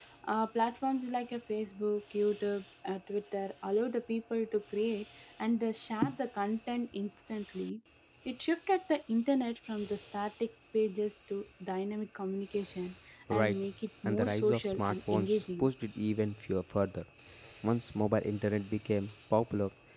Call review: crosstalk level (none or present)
present